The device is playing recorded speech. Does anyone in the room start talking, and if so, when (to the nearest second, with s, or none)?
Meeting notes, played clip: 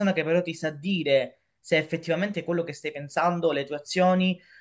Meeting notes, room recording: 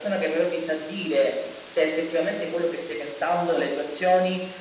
none